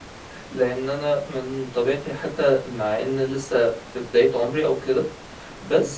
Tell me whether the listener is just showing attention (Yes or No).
Yes